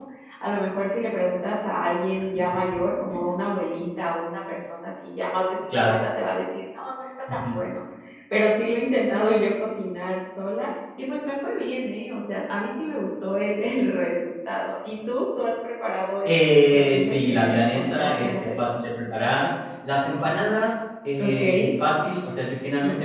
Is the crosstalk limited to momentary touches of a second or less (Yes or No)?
No